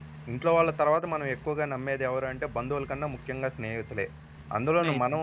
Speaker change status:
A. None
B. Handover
A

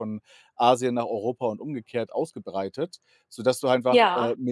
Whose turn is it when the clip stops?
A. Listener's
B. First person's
B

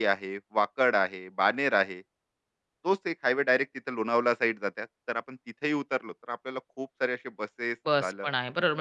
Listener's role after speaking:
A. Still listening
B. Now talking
B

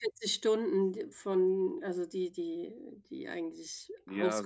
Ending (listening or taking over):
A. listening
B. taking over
B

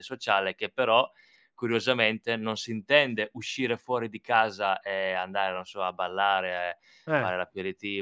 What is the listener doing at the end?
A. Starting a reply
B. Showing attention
B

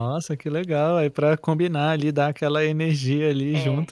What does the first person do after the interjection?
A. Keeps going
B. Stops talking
B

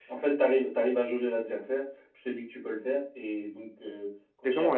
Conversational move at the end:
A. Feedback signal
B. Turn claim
B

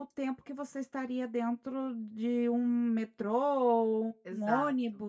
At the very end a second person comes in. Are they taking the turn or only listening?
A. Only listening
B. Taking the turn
A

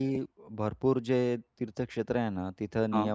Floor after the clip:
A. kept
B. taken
A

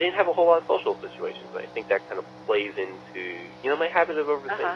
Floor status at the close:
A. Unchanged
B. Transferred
B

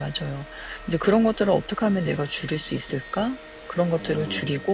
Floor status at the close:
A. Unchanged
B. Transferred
A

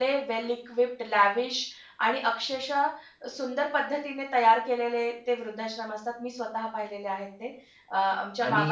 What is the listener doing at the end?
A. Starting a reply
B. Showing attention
A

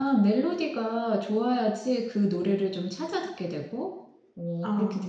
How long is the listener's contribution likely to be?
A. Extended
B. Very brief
A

